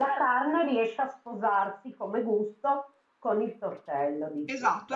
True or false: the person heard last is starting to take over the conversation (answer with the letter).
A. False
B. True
B